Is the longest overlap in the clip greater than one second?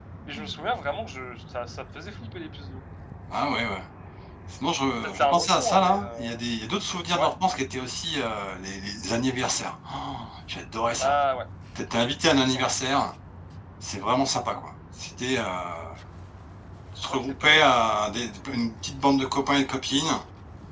Yes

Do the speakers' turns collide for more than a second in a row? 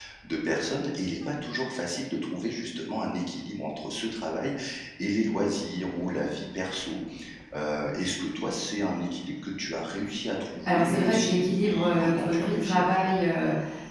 Yes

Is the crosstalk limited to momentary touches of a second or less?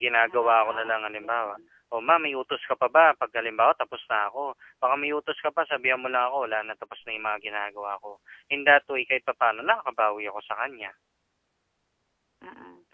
No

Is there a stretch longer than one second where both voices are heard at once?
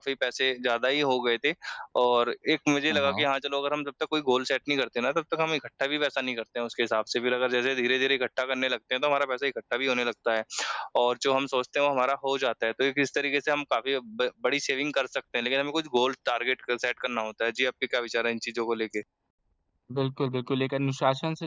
No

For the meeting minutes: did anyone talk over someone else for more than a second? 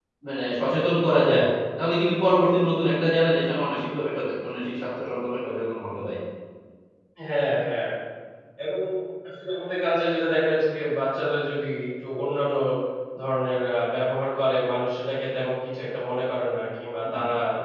No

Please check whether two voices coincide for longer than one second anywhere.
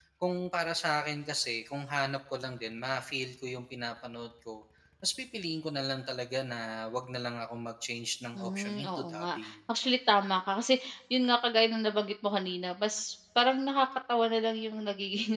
Yes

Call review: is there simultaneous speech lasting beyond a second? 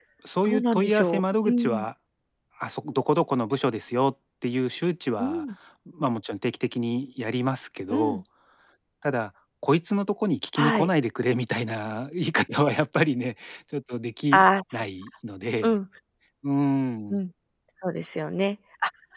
Yes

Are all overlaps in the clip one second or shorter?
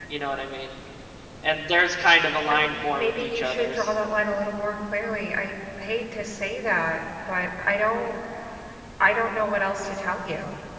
No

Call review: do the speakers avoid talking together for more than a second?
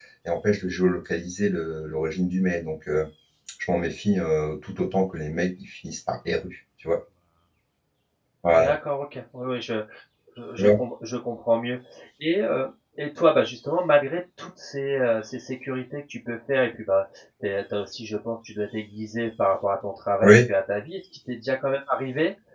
Yes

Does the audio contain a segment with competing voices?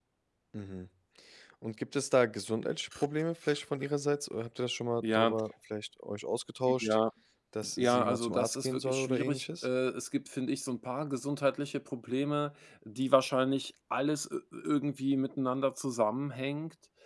Yes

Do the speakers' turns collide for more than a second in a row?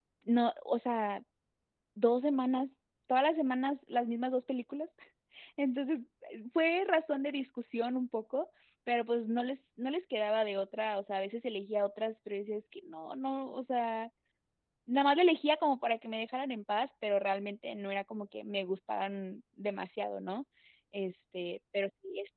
No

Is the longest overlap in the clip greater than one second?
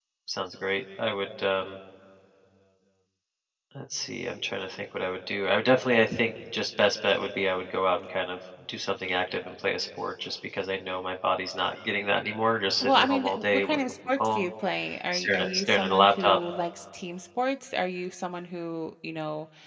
Yes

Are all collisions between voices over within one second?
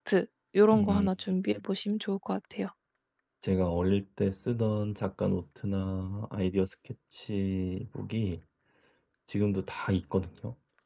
Yes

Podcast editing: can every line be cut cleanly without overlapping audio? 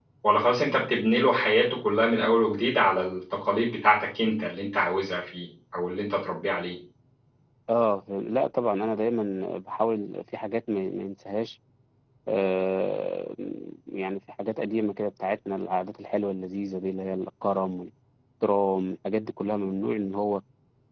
Yes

